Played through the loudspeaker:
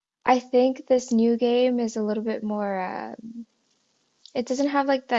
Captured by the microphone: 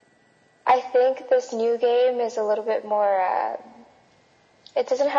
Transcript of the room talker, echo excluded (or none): none